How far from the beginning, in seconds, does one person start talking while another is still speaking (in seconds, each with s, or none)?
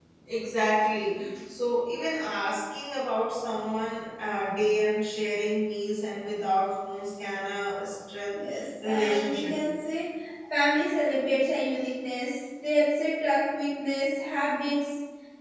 8.3 s